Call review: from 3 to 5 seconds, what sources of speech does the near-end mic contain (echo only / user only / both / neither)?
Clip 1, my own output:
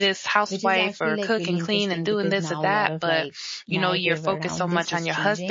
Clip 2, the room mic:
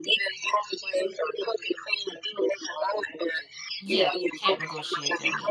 both